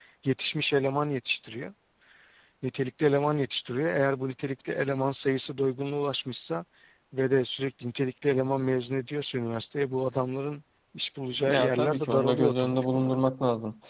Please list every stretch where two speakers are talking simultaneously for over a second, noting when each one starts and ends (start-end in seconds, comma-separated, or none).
11.4-13.2